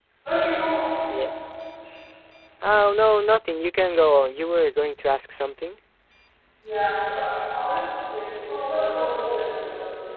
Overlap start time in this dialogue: none

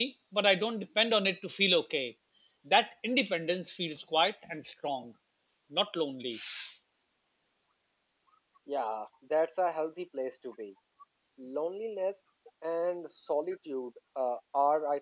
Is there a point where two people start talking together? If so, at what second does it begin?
none

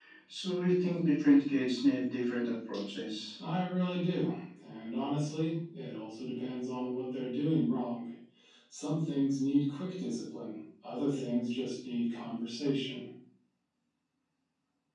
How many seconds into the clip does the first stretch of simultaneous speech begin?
none

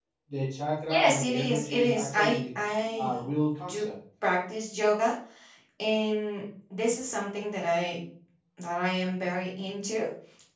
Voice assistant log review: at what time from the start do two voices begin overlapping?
0.9 s

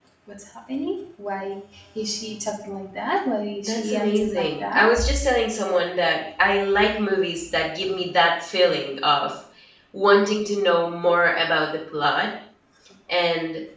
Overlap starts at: 3.6 s

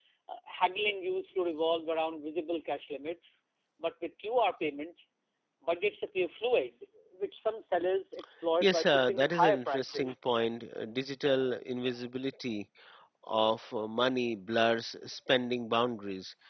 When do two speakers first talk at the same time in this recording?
8.6 s

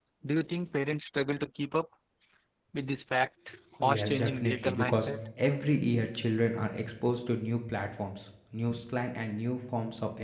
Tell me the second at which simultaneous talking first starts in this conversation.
3.8 s

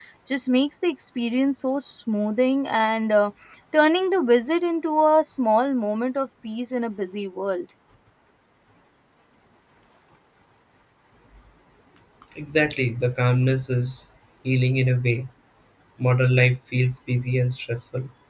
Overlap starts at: none

